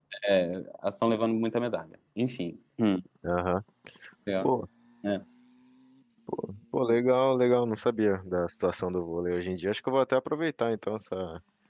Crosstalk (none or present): none